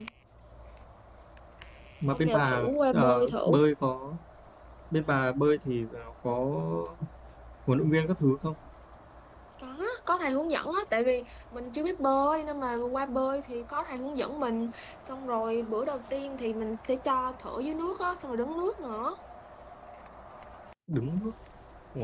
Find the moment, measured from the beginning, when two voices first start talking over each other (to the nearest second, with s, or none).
2 s